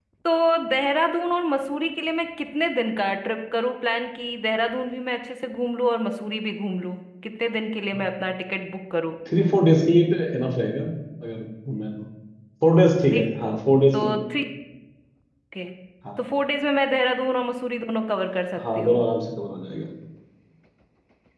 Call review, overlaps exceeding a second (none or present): none